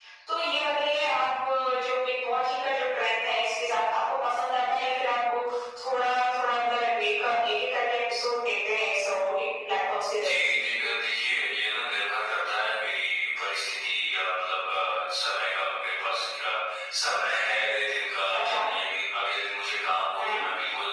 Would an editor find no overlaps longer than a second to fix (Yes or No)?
Yes